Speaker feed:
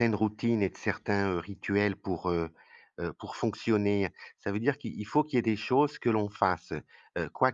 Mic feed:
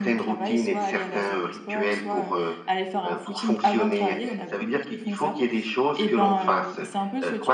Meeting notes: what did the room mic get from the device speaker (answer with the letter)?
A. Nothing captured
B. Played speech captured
B